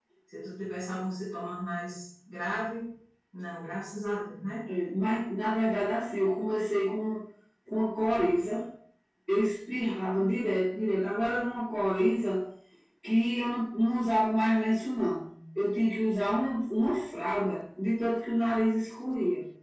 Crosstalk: none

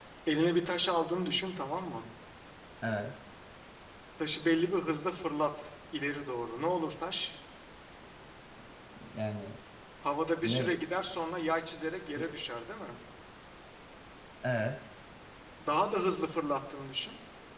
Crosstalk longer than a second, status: none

